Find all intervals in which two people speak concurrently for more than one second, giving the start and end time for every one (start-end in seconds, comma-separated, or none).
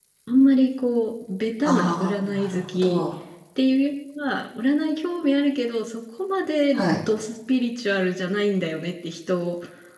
1.6-3.0